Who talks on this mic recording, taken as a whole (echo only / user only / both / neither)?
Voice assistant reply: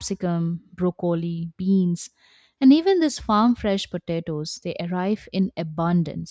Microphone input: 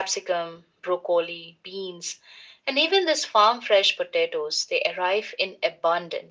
echo only